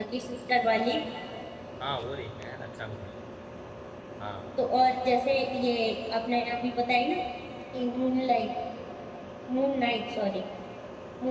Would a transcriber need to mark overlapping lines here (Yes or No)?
No